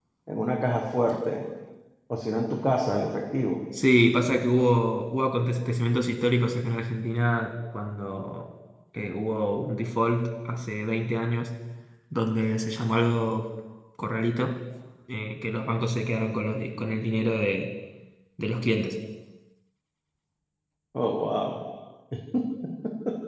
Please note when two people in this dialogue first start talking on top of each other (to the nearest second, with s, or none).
none